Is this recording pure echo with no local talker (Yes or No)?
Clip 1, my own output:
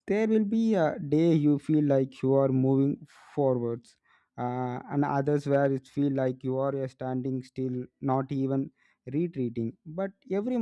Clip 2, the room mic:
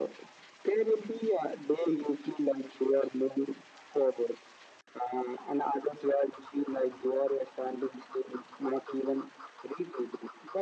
Yes